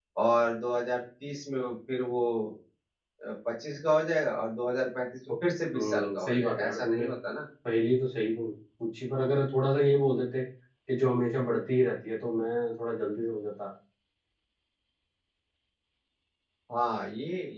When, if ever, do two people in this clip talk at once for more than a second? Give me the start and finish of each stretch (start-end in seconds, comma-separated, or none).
5.7-7.0